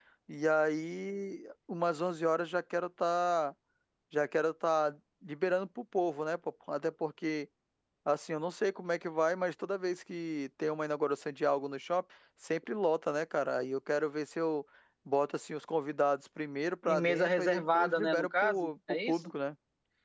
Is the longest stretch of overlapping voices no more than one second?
No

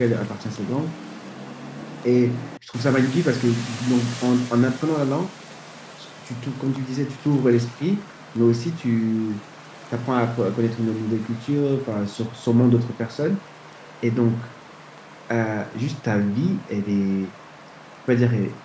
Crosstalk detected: No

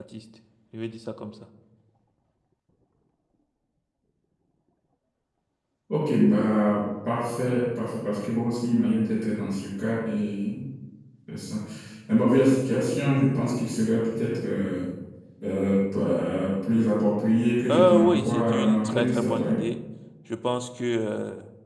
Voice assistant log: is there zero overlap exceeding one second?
No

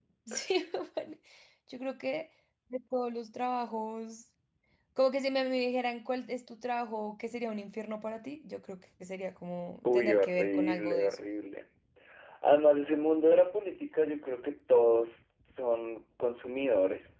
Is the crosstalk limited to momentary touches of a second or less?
No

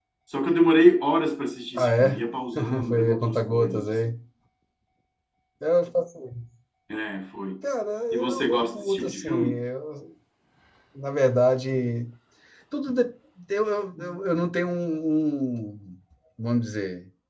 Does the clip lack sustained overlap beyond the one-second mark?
No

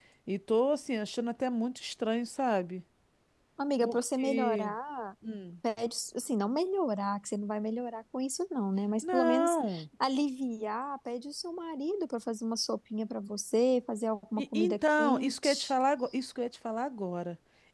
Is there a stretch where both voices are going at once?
Yes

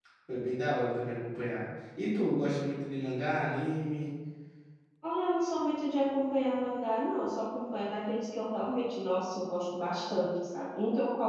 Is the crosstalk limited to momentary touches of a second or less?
Yes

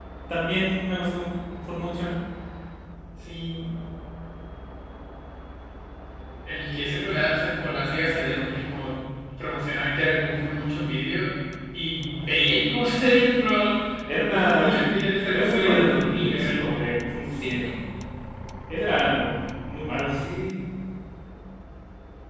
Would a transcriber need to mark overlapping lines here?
Yes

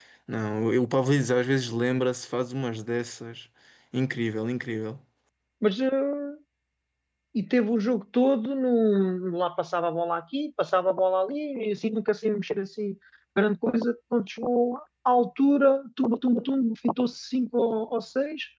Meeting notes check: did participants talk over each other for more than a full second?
No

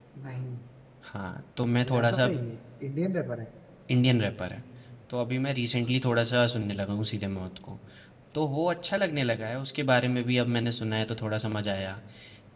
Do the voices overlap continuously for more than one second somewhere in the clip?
No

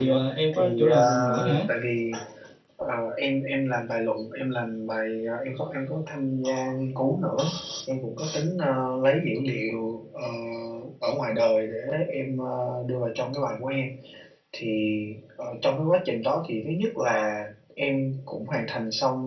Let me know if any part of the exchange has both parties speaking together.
Yes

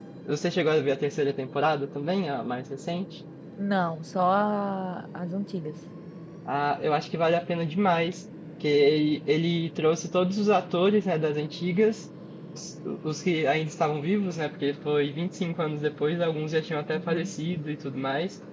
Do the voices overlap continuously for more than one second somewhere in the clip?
No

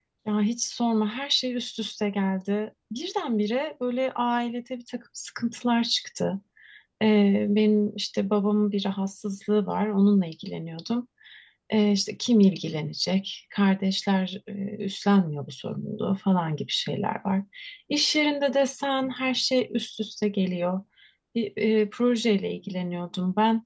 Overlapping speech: No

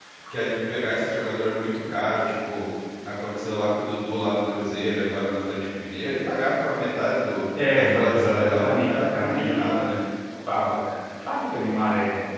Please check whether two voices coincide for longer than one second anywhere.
Yes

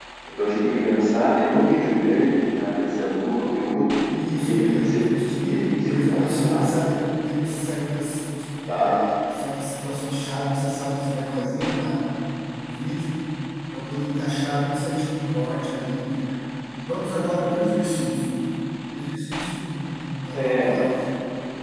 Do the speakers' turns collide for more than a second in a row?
Yes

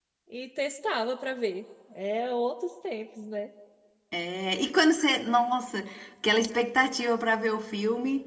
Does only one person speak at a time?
Yes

